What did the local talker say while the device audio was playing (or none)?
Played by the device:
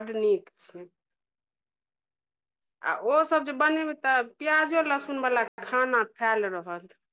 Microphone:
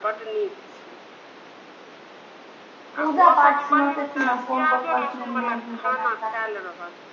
पूजा पाठ मे सेथिन न फोन पर कहलखिनए मैगी बना क राख।